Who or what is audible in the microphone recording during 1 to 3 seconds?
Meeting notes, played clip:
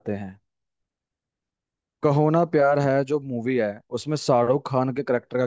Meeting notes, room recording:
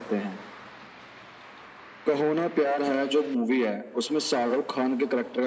echo only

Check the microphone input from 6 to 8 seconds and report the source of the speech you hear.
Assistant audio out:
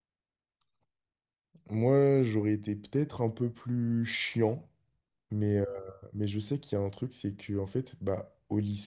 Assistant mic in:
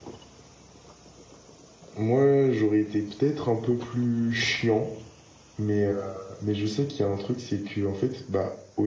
echo only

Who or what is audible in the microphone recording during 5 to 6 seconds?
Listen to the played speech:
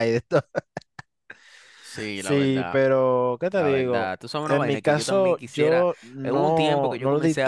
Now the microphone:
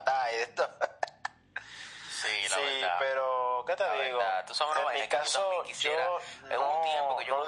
echo only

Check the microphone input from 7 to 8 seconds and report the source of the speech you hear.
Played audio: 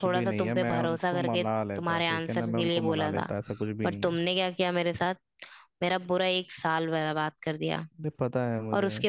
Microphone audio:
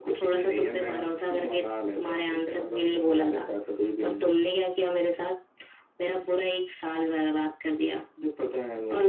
echo only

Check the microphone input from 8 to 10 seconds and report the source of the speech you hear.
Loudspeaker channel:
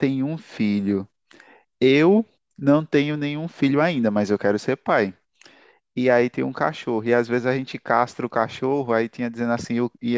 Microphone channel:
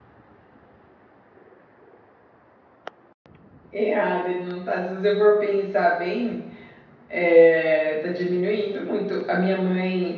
user only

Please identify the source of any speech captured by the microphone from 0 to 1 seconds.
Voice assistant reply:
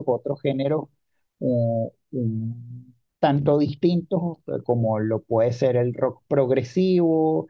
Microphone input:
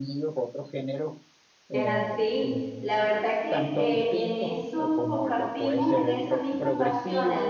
echo only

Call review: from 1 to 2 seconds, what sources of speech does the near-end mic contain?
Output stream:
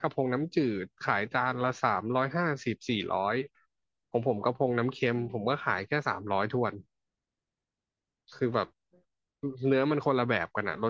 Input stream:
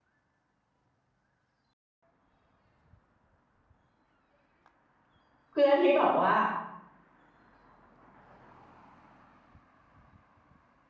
neither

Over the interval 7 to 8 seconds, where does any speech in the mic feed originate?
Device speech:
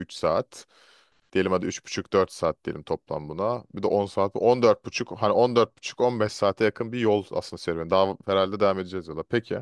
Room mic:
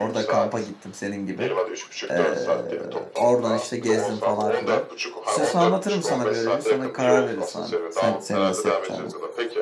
both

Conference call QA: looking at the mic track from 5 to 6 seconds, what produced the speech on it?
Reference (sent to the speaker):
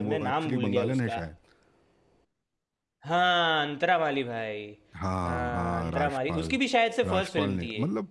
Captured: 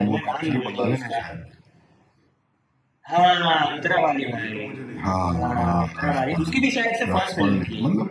both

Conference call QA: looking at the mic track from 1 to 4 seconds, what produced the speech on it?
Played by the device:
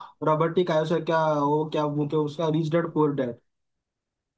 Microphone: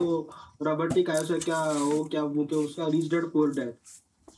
echo only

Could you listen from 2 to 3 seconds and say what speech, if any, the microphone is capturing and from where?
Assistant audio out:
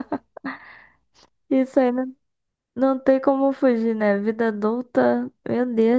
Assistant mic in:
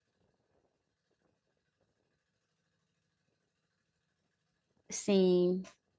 neither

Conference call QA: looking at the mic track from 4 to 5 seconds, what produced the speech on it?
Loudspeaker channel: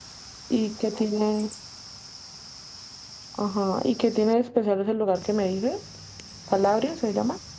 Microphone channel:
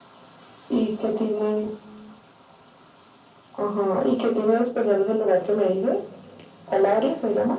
echo only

